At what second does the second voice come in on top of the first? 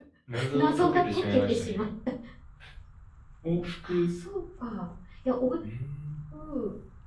0.5 s

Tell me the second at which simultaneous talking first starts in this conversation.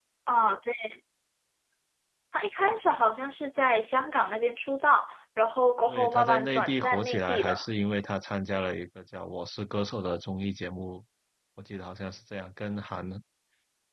5.9 s

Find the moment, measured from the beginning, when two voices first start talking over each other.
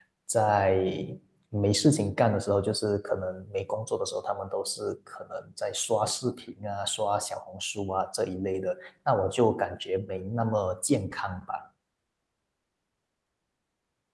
none

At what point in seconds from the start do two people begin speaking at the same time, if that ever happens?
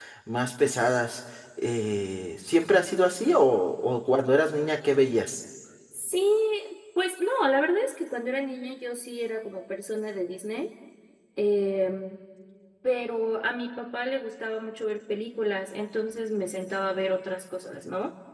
none

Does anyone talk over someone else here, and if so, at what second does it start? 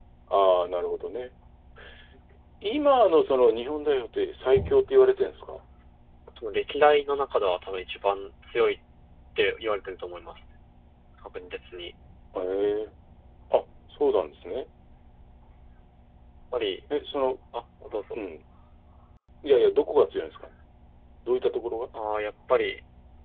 none

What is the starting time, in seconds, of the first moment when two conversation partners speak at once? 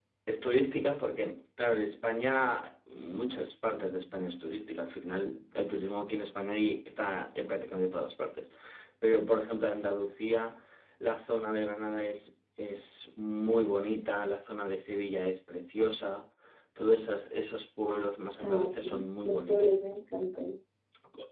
18.4 s

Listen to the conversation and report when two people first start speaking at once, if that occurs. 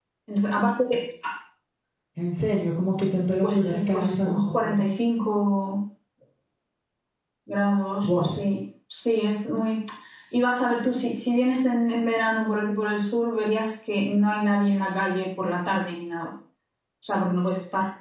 3.4 s

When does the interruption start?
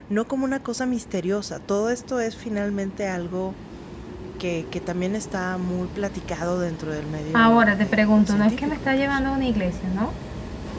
7.3 s

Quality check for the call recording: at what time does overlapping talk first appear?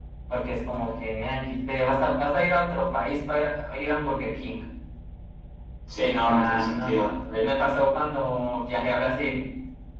6.2 s

